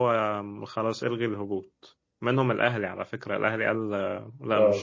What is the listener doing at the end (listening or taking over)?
taking over